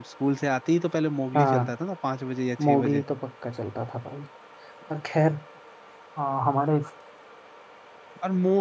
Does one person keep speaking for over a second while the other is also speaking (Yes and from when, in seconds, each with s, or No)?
No